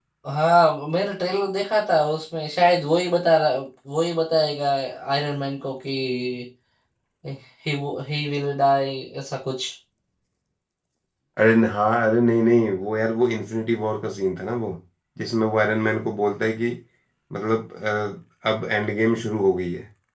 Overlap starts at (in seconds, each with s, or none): none